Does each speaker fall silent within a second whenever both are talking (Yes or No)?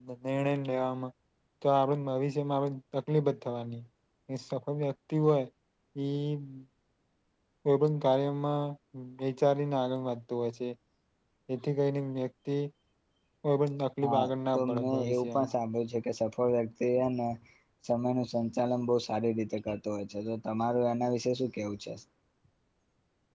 No